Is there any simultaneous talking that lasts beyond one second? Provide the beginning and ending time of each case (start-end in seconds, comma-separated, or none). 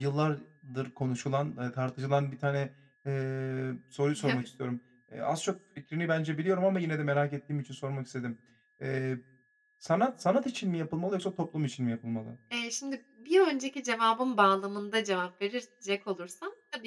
none